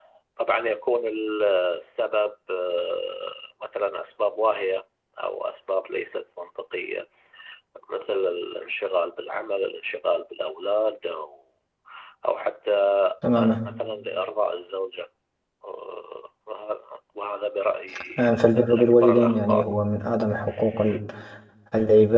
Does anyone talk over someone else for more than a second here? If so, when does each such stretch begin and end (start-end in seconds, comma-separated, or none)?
18.2-19.7